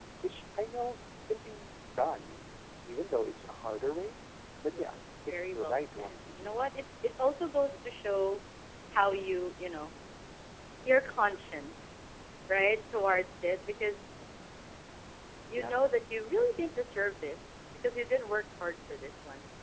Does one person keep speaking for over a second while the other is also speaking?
Yes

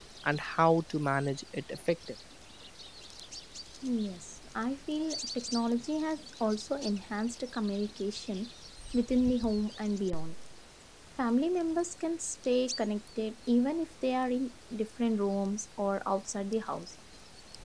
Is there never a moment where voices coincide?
Yes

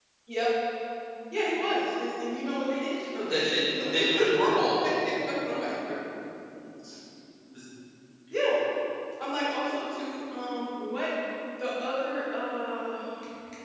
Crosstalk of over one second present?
Yes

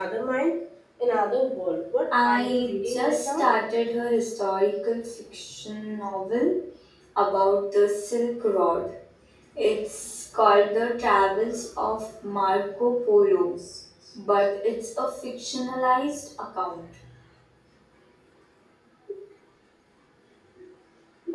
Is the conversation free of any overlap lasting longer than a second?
No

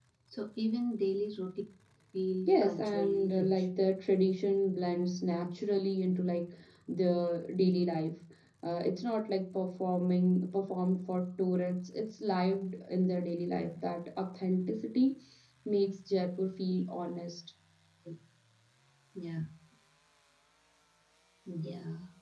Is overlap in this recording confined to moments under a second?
No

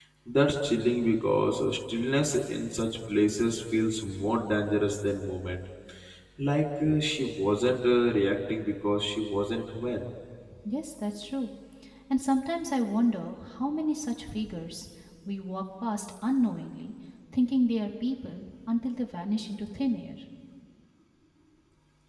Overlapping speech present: No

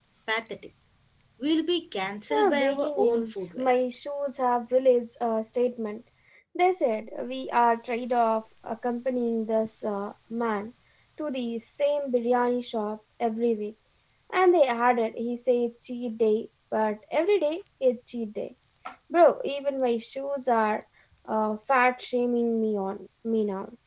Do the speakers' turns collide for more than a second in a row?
Yes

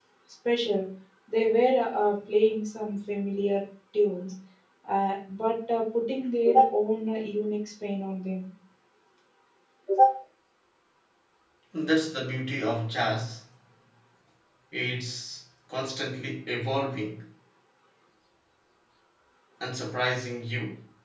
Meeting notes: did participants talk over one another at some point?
No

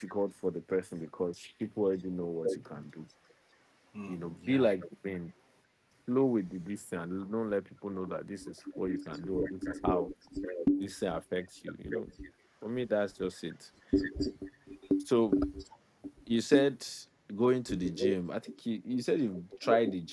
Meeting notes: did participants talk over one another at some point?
Yes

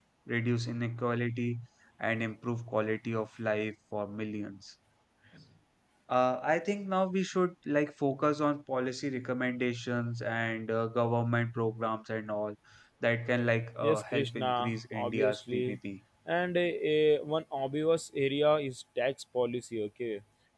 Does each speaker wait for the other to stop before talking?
No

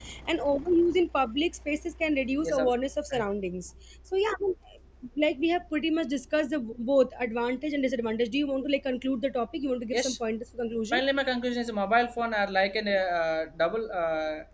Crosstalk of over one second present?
No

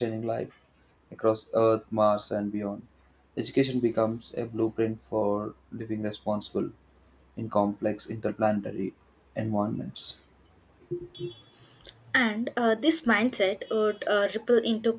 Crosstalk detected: No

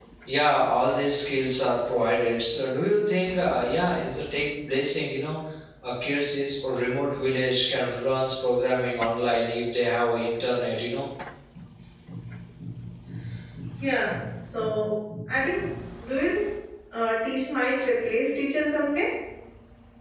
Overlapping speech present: No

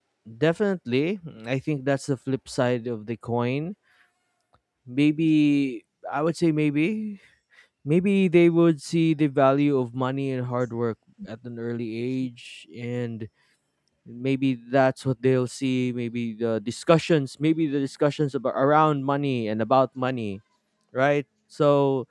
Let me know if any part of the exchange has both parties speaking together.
No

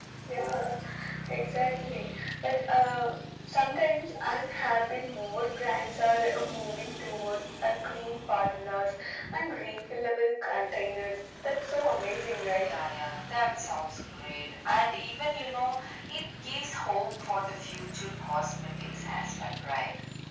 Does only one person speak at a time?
Yes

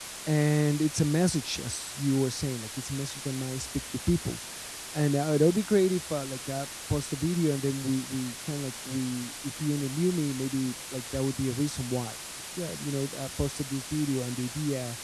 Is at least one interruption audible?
No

